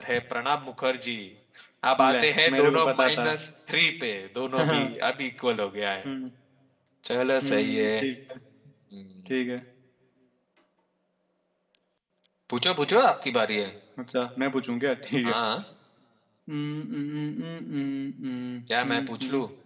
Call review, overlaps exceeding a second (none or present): present